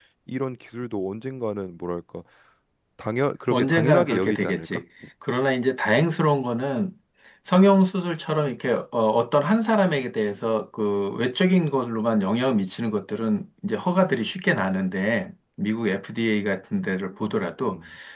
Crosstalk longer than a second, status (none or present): present